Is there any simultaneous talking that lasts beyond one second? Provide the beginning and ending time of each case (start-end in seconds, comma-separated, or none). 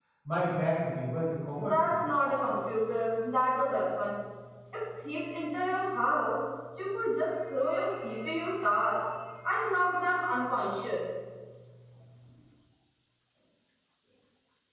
none